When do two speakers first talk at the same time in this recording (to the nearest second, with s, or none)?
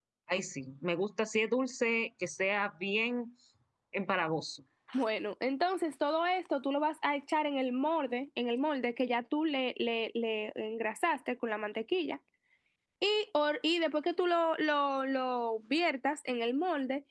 none